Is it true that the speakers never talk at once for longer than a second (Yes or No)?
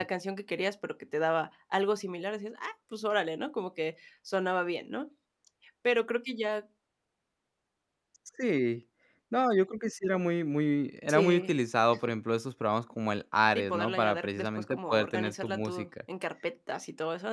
No